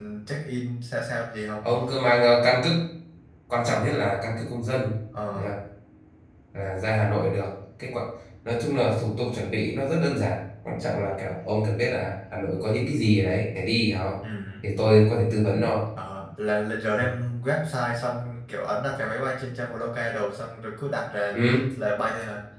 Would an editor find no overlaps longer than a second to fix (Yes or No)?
Yes